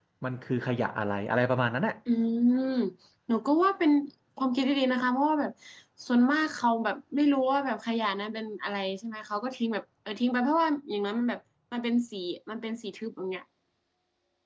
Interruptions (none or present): none